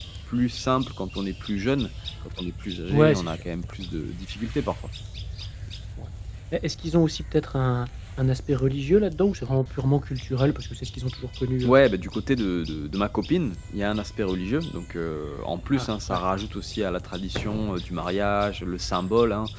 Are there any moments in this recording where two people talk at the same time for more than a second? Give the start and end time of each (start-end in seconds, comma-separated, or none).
none